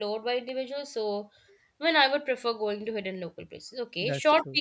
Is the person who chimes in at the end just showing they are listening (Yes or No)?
Yes